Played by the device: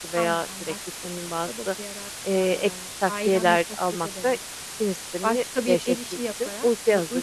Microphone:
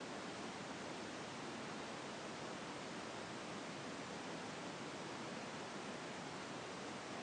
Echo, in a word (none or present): none